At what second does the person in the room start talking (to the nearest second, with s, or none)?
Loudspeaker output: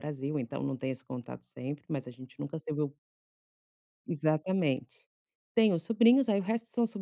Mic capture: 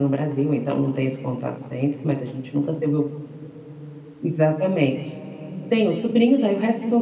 none